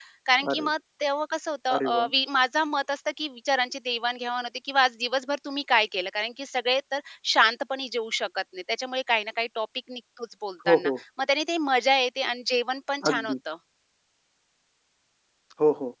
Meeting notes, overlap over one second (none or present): none